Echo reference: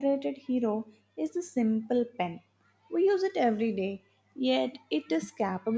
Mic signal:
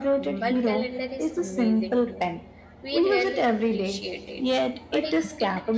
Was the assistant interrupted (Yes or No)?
Yes